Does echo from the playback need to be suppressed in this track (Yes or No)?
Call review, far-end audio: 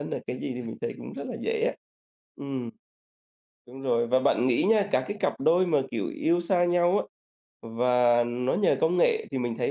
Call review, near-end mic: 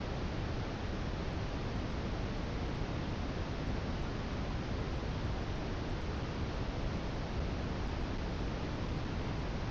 No